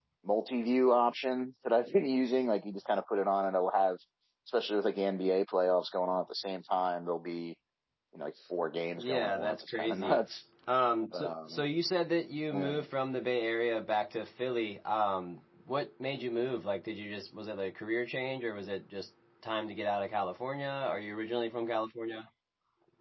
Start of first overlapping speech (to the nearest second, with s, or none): 9 s